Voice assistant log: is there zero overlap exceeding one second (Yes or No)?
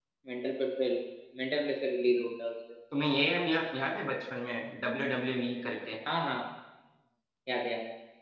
Yes